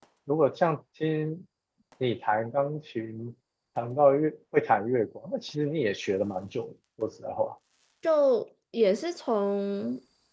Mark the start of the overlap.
none

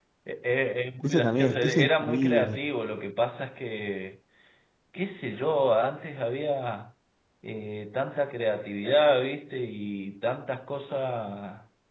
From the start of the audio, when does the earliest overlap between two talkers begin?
1.1 s

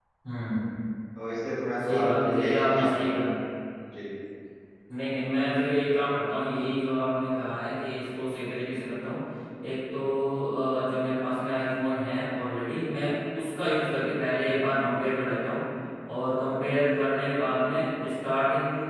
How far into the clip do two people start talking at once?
1.8 s

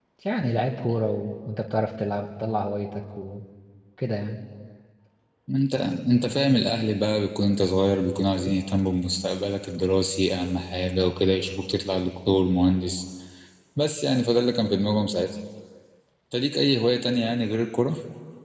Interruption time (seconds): none

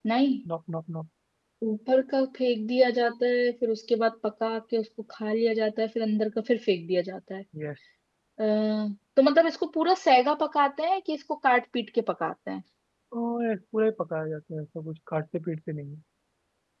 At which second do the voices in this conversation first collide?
none

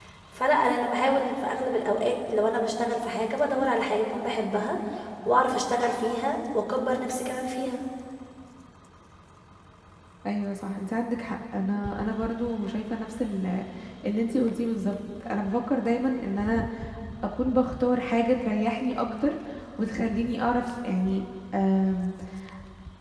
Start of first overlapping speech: none

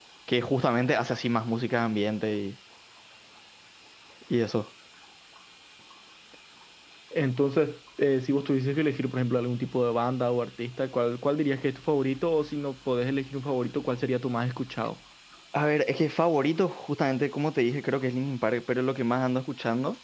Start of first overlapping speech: none

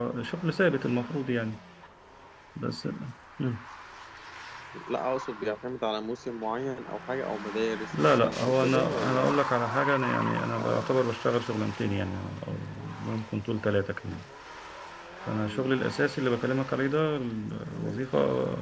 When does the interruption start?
8.0 s

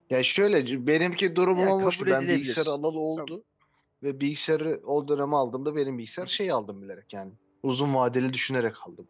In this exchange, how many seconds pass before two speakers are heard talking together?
1.5 s

